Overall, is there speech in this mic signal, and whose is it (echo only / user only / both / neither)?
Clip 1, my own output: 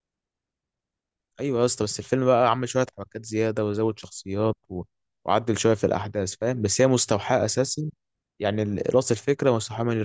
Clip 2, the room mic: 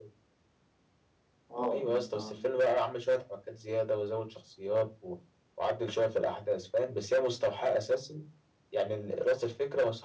both